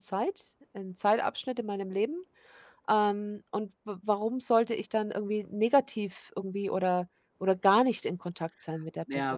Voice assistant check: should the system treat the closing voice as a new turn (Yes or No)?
Yes